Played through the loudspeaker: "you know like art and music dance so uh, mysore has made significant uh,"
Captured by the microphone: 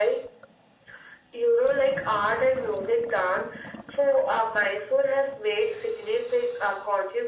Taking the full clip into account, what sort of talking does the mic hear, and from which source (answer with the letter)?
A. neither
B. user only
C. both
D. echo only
D